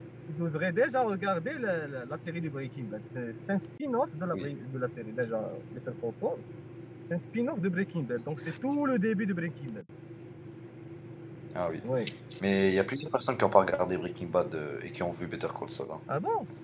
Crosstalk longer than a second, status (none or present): none